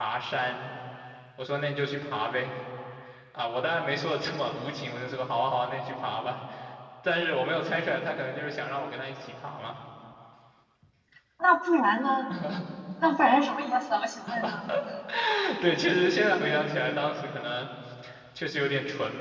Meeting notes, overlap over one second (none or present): none